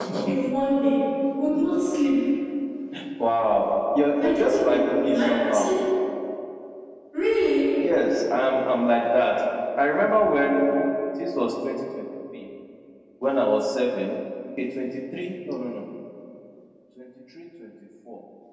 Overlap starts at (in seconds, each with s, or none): 4.2 s